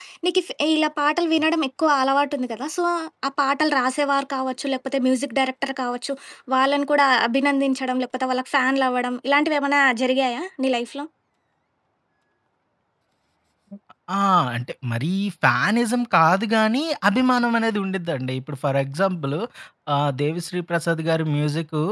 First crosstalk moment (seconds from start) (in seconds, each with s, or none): none